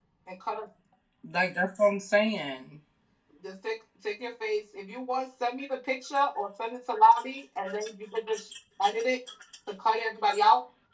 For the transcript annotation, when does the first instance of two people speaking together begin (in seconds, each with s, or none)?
none